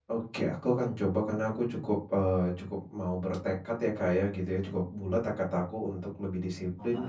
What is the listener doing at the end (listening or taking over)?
listening